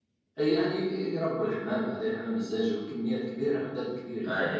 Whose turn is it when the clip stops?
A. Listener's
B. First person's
B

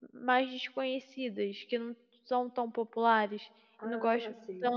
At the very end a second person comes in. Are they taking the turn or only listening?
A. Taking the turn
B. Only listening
B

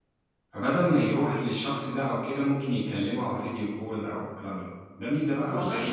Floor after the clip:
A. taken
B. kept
A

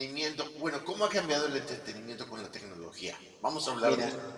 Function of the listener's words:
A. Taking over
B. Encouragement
A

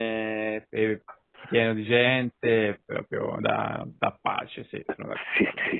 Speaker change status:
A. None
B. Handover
B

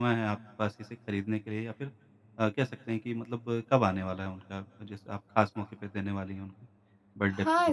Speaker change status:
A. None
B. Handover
B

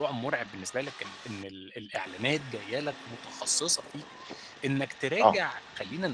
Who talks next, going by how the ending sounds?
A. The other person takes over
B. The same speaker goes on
B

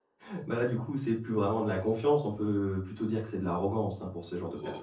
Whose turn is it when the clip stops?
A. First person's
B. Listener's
B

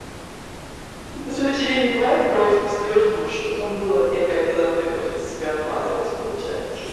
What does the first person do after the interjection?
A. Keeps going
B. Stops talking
B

